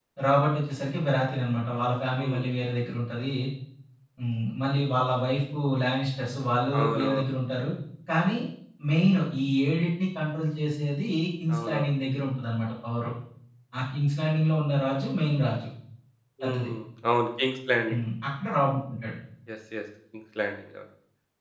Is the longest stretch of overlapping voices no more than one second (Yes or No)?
Yes